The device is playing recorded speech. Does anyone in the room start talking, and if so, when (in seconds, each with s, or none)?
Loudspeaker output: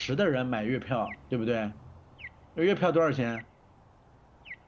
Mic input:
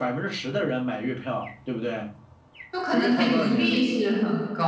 2.7 s